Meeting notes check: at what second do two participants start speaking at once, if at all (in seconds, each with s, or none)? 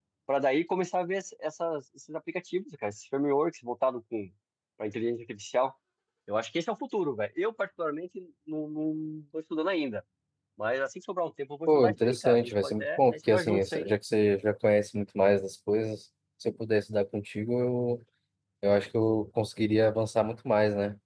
11.7 s